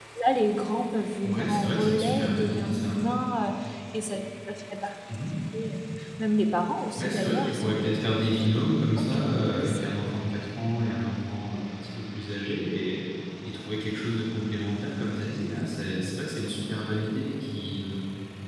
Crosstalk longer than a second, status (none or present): present